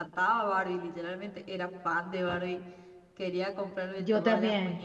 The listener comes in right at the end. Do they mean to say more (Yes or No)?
No